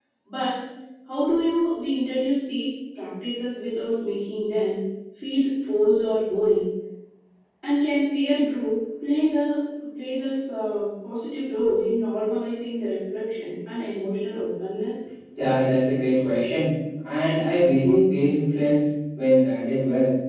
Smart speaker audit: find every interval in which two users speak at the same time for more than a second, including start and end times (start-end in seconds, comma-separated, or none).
none